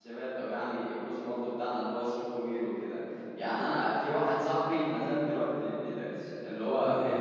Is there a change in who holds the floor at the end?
No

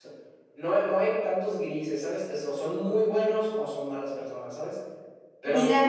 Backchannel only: Yes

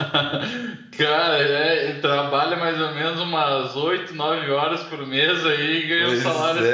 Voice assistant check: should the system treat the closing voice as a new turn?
Yes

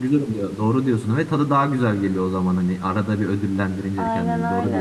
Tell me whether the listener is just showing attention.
No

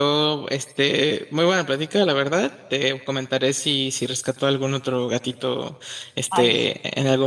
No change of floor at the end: Yes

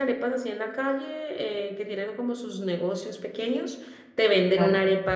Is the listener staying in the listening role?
Yes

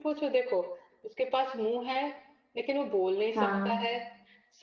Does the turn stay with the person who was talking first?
Yes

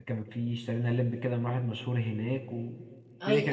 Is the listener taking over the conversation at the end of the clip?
Yes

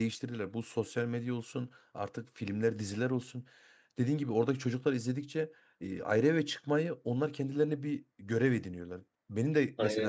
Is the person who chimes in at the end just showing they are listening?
Yes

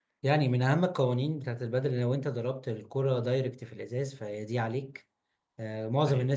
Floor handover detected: No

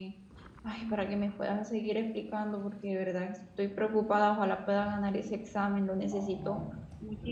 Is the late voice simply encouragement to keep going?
No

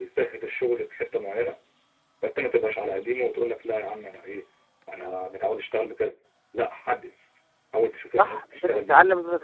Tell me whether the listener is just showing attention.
No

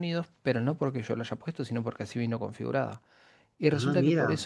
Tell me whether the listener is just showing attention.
Yes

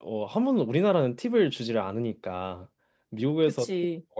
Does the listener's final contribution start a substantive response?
No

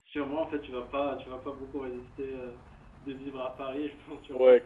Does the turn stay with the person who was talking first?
No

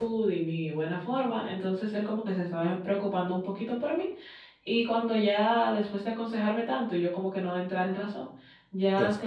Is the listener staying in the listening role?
Yes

